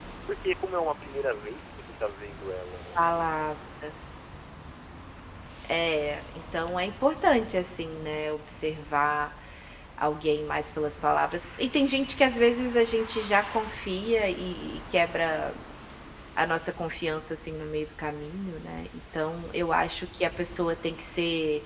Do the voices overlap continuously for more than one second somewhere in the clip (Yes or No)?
No